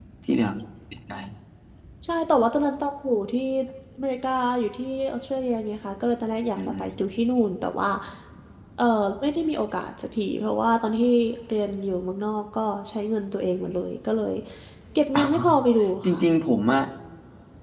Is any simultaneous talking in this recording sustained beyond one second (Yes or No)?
No